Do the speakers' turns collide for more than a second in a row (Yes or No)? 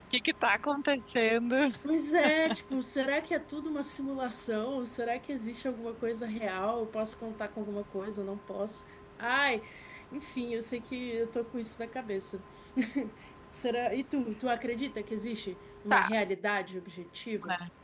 No